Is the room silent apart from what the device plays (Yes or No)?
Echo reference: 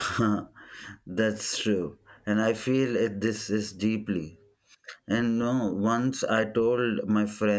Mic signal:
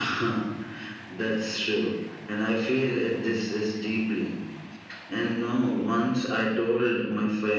Yes